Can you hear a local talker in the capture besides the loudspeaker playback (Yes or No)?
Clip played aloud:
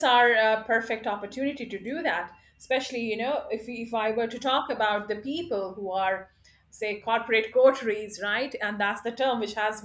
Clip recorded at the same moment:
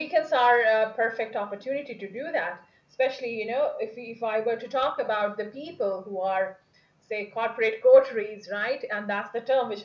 No